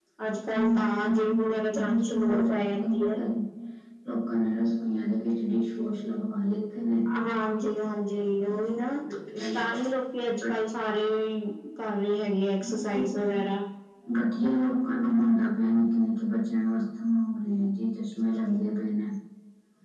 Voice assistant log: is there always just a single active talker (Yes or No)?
No